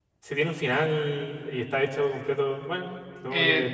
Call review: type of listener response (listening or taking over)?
taking over